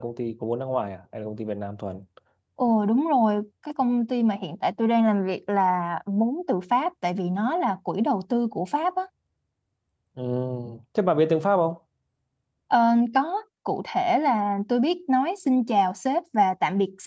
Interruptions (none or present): none